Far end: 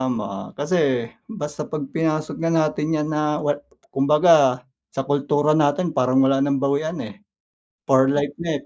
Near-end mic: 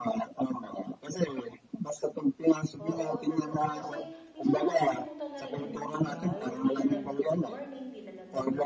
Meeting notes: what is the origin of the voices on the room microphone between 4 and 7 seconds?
both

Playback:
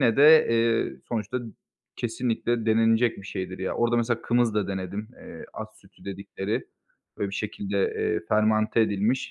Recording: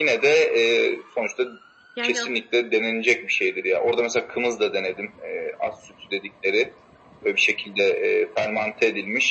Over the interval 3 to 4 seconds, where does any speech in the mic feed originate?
echo only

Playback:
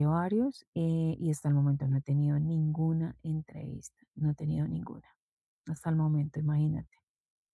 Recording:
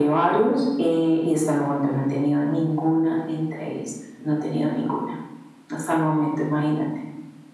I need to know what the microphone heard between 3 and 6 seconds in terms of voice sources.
echo only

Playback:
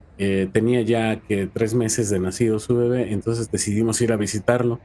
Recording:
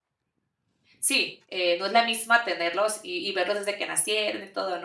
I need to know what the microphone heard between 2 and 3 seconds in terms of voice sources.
user only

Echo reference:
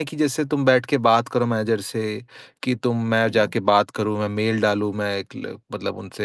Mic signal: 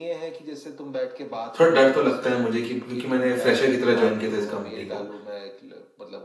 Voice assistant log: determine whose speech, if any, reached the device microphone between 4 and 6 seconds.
both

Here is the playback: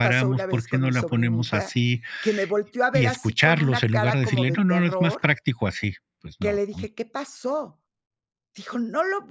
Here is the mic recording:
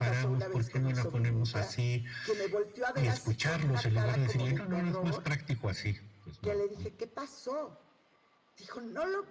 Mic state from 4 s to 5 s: echo only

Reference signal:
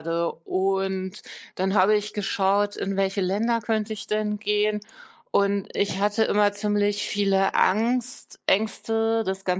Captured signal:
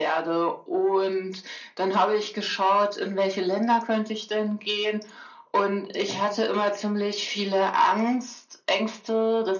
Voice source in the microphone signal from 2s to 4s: echo only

